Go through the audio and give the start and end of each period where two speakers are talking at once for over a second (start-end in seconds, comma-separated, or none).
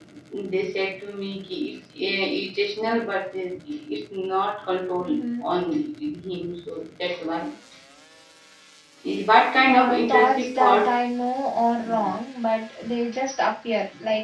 9.7-11.0